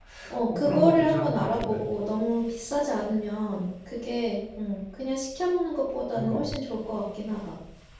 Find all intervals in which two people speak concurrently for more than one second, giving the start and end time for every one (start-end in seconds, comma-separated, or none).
0.6-1.8